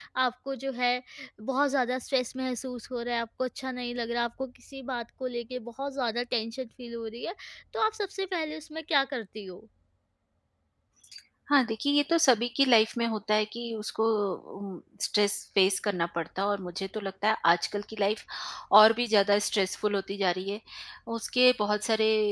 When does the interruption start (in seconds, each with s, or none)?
none